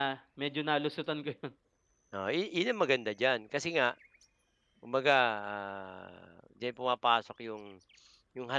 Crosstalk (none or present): none